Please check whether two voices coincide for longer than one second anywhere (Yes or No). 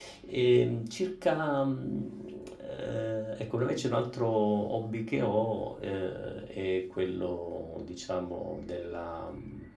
No